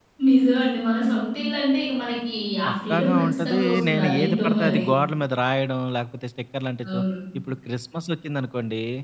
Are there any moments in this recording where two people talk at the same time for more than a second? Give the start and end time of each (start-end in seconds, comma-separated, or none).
2.7-4.8